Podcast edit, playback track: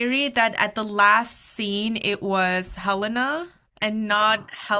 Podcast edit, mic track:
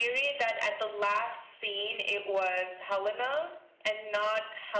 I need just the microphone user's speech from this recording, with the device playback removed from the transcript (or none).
none